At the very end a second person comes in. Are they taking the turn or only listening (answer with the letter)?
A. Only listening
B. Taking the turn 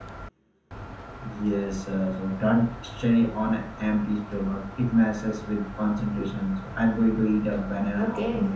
B